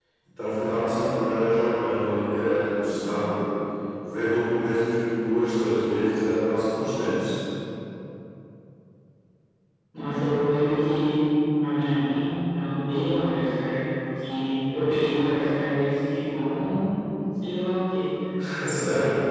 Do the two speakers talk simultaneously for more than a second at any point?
No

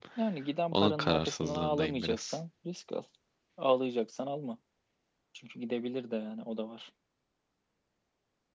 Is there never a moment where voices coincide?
No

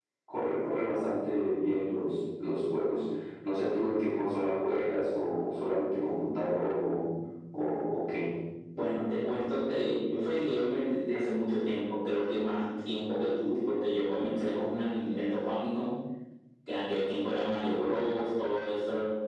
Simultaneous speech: No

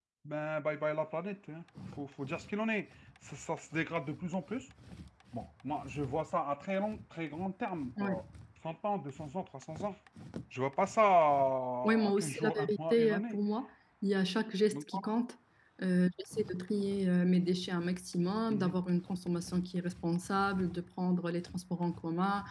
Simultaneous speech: Yes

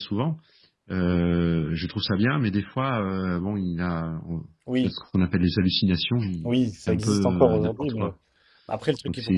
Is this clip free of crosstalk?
No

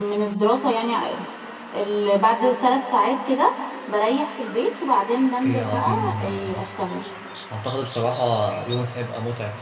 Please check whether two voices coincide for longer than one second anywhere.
Yes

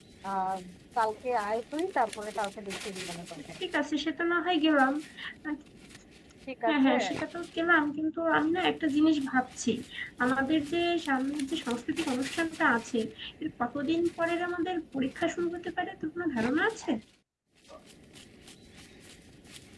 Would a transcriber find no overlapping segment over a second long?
Yes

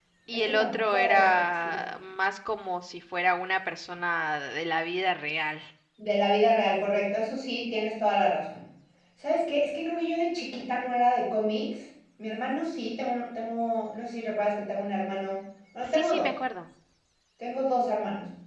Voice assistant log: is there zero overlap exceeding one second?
No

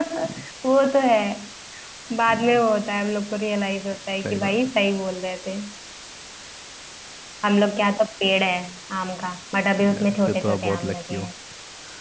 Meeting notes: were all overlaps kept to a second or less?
No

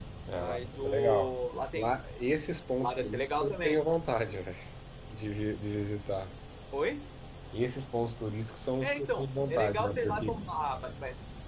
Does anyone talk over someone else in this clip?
Yes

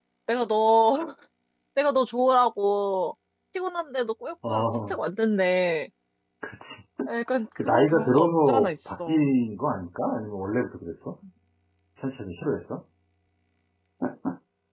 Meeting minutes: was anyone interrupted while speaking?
Yes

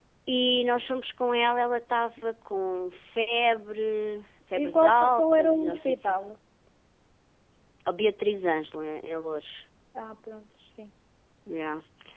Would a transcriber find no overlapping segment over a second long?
No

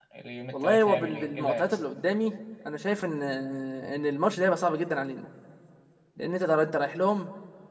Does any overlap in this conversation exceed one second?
Yes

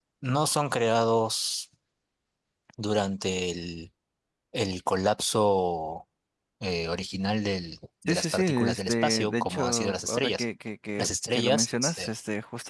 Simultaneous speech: Yes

